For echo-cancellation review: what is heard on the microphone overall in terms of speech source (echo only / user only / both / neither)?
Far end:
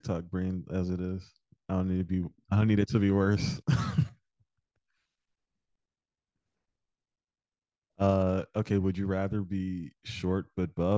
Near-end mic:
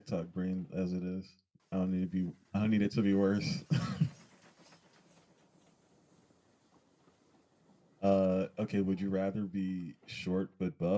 echo only